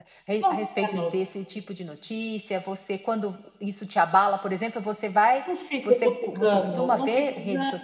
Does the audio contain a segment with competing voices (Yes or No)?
Yes